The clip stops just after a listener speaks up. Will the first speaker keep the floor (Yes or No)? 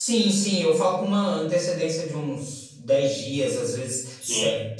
Yes